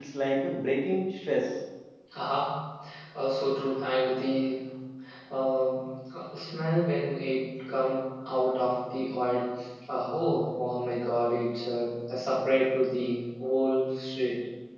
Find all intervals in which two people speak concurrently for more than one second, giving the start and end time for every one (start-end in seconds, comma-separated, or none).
none